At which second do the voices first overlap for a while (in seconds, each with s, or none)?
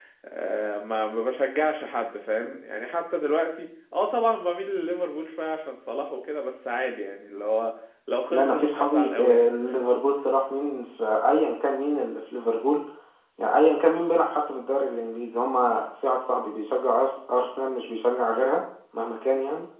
8.3 s